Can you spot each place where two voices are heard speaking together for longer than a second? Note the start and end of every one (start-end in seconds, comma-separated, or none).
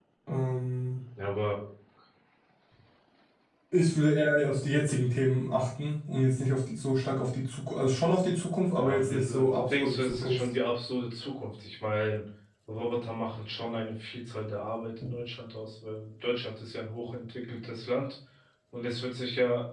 8.8-10.5